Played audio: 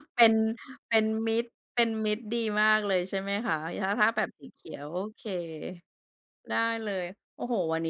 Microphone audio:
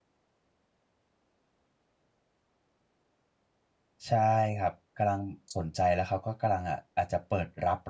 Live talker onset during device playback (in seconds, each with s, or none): 4.0 s